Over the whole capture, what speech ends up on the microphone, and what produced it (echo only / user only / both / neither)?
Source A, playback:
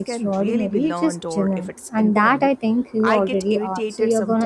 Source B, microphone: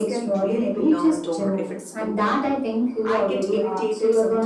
echo only